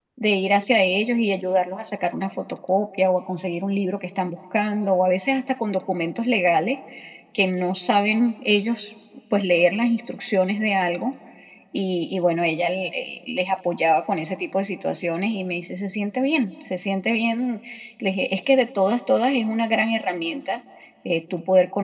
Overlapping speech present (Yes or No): No